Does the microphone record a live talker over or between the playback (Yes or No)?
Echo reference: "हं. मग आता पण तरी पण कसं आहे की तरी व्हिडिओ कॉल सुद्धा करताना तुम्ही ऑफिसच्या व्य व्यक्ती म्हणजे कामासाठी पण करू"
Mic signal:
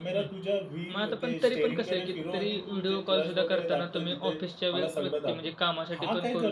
Yes